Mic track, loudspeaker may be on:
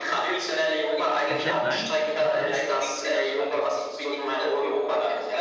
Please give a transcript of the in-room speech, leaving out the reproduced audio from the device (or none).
Äh, Slapline heißt das?